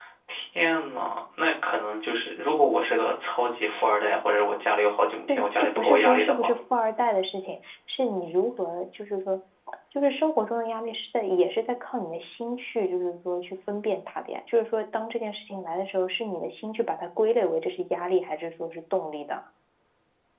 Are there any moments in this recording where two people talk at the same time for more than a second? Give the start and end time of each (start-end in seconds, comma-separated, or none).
5.3-6.5